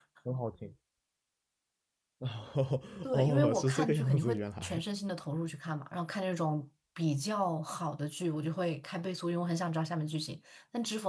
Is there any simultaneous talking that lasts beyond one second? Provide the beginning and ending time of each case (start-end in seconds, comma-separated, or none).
3.0-4.8